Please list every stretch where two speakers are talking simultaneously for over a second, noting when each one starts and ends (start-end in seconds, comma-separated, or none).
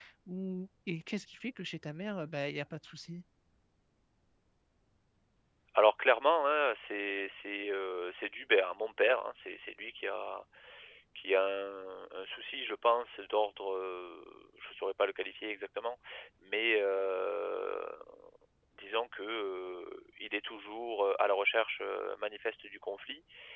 none